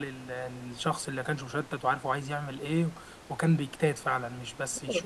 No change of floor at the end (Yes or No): No